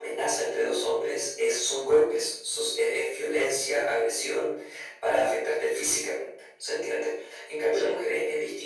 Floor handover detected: No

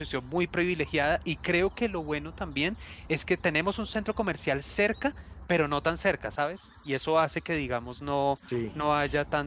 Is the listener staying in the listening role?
Yes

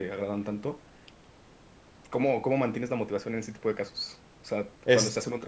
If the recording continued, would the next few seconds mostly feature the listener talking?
No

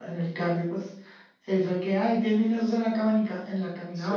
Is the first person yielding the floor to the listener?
No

